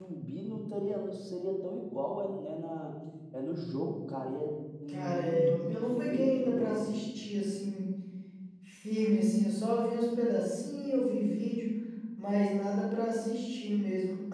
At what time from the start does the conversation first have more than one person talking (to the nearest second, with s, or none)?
5 s